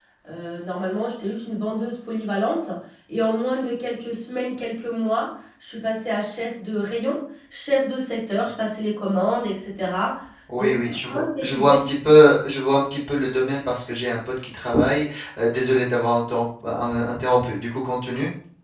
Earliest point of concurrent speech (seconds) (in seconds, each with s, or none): 10.6 s